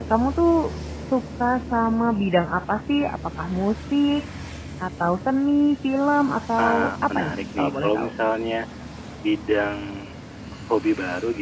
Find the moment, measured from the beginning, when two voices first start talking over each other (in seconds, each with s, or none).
6.6 s